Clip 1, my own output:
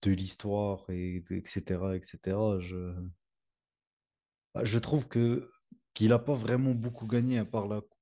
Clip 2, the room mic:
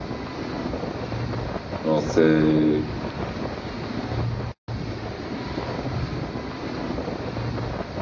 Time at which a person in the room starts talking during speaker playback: 2 s

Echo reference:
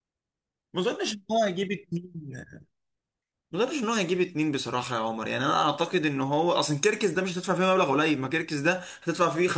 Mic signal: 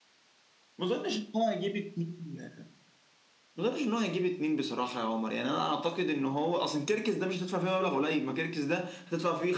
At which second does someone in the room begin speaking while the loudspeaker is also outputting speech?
none

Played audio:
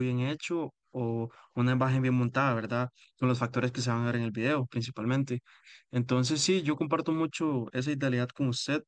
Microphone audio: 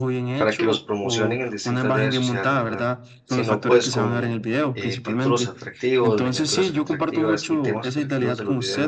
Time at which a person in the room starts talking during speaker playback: 0 s

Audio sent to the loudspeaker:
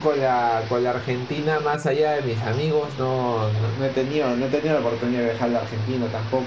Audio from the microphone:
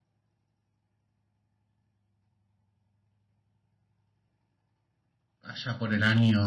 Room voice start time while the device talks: 5 s

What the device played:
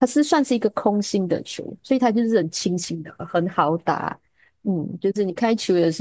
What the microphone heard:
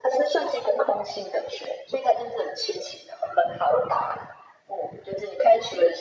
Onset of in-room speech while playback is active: none

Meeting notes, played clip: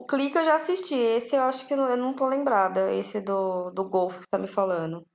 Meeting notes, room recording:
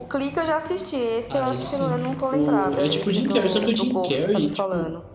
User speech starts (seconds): 1 s

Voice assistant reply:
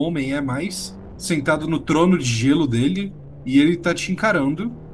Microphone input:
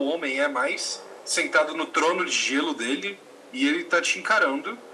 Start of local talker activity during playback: none

